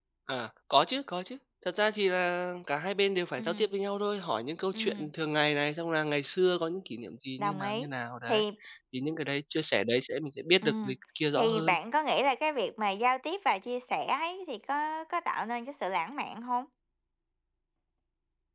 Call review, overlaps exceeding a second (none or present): none